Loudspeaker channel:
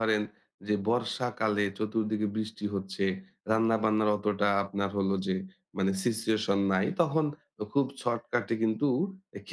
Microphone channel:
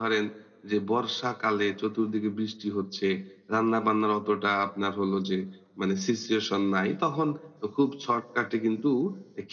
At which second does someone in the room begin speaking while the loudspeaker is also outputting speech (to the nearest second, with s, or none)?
none